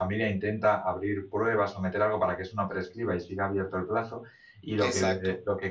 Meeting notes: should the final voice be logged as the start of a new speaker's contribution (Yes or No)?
No